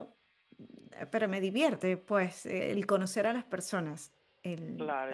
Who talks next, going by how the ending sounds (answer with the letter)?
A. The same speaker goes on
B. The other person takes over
B